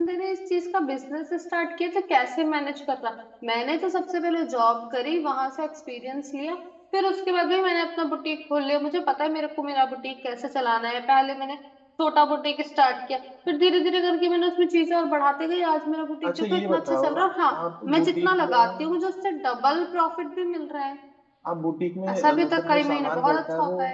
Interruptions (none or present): present